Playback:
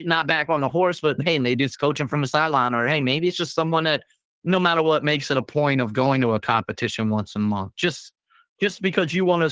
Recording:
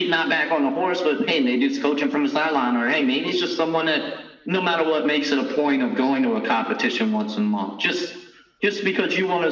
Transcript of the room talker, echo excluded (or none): none